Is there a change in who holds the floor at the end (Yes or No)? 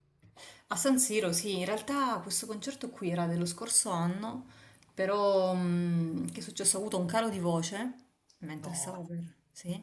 No